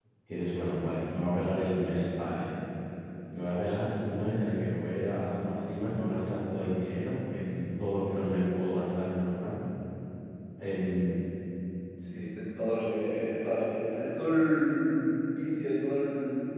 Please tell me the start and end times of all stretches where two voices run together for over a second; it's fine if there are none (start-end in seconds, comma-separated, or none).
none